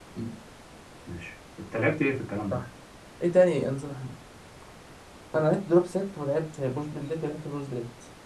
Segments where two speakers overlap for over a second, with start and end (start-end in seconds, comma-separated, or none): none